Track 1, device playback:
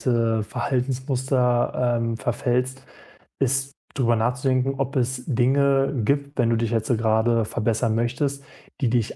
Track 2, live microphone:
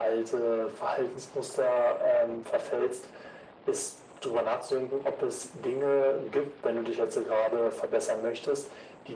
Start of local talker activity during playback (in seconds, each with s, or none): none